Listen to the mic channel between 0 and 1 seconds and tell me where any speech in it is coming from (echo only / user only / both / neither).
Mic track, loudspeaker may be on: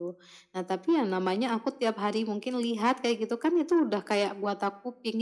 echo only